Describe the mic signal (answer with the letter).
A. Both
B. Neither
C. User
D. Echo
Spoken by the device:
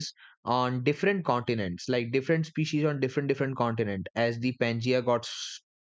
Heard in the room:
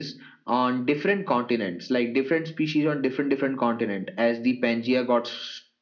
D